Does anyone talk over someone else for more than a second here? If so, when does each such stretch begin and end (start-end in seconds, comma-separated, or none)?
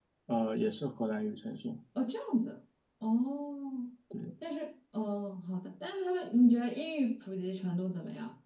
none